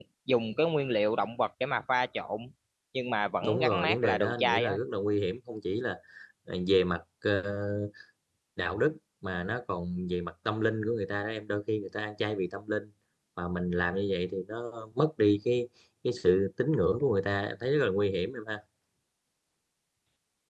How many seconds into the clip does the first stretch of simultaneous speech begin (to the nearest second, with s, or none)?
3 s